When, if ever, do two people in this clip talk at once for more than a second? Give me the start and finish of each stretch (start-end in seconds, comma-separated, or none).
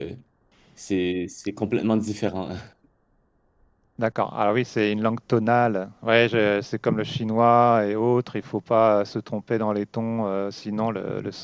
none